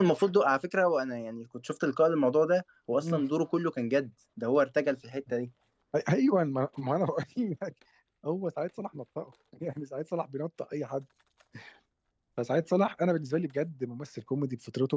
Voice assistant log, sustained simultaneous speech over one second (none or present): none